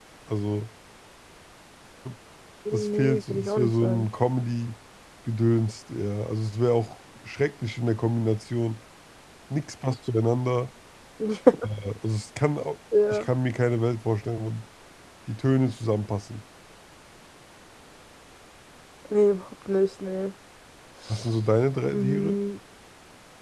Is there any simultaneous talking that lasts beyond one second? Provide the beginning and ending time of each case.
2.7-4.0

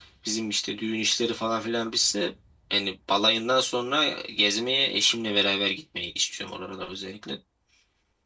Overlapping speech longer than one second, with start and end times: none

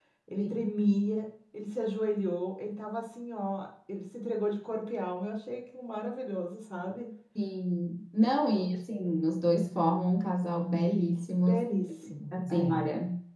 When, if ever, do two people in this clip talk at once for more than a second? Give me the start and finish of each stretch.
none

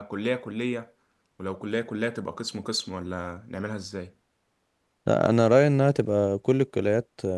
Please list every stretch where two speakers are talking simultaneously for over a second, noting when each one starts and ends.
none

